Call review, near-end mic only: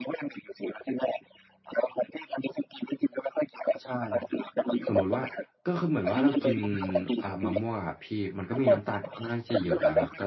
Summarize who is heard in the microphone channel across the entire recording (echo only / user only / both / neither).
both